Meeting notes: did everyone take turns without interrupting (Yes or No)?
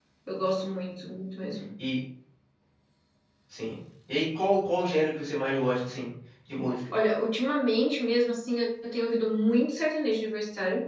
Yes